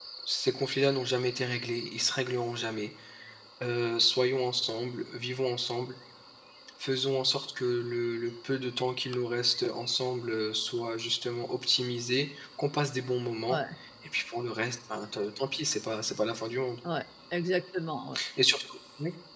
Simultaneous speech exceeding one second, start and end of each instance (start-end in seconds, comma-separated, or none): none